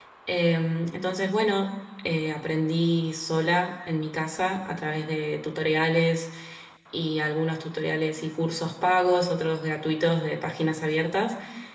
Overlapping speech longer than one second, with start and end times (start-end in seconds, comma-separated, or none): none